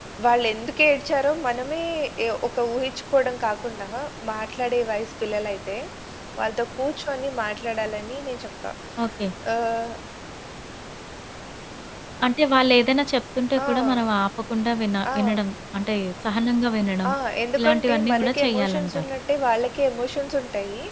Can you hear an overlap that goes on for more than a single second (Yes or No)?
Yes